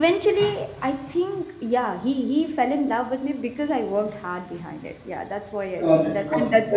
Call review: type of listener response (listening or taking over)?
taking over